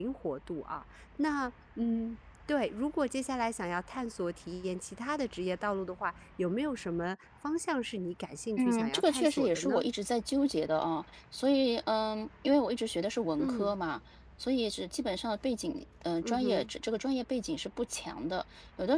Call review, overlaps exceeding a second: present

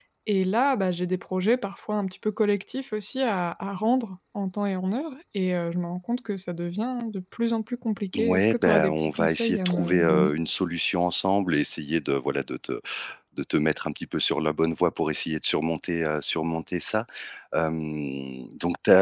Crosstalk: present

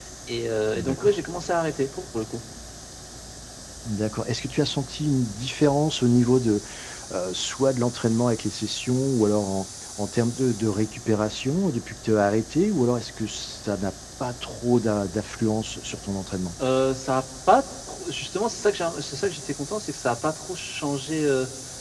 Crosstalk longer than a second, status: none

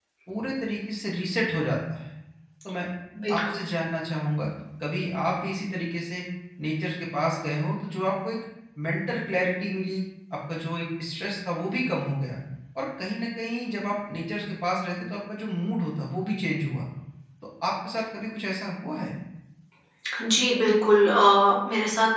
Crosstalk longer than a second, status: none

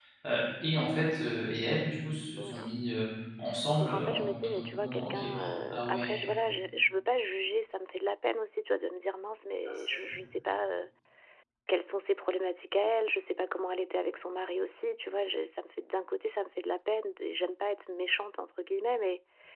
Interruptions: present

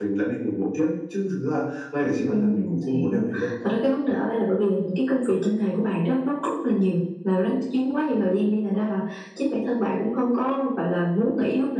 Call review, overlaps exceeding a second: present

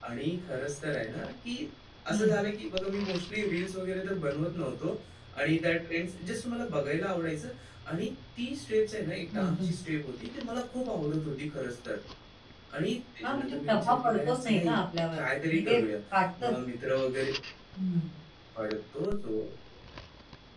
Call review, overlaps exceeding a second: present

